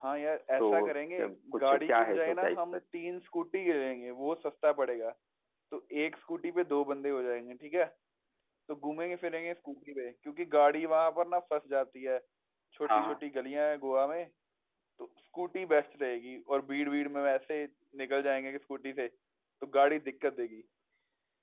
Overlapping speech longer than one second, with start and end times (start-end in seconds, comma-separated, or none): 0.6-2.8